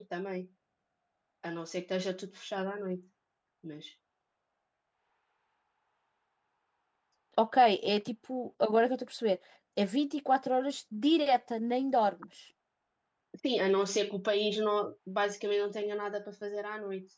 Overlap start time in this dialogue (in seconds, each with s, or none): none